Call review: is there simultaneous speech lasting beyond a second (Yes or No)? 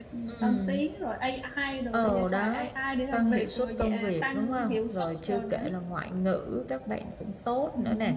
Yes